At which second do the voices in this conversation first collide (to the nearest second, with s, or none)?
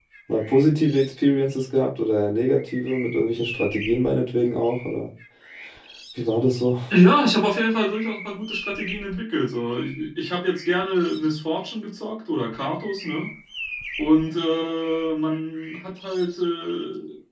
none